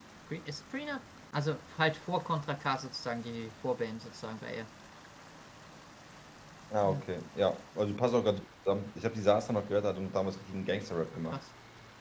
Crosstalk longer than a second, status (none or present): none